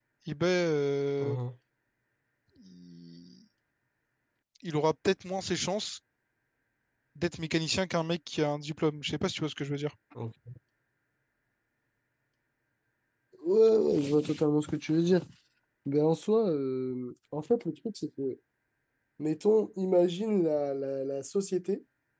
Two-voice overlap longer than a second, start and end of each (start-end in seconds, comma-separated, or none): none